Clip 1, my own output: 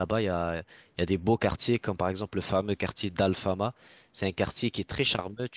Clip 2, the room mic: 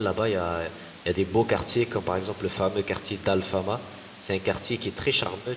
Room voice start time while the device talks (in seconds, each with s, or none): none